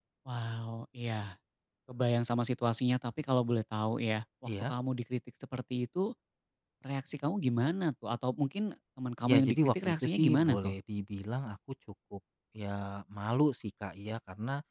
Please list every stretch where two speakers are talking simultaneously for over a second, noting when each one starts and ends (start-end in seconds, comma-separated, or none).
9.3-10.7